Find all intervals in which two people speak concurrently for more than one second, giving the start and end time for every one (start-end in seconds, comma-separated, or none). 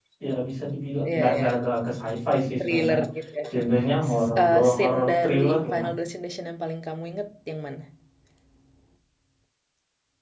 4.1-5.9